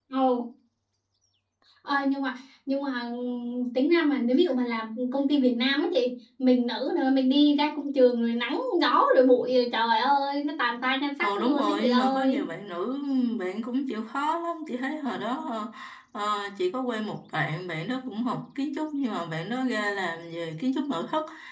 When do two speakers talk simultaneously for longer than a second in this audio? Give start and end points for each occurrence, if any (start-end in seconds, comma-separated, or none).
11.2-12.4